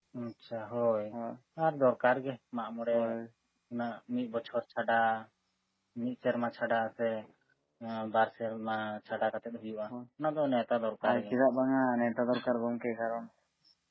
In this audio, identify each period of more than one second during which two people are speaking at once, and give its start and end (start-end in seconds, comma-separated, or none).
none